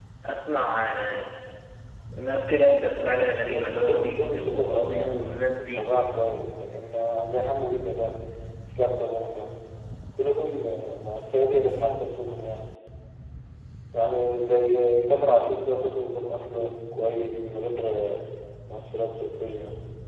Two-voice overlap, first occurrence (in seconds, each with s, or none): 3.4 s